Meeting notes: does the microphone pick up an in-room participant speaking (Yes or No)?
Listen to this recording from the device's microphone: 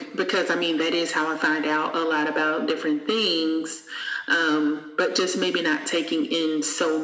No